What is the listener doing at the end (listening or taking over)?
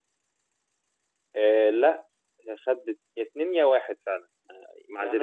taking over